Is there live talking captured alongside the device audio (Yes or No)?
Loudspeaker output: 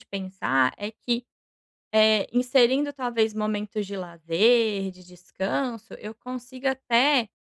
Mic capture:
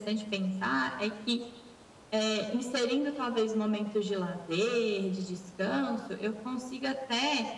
No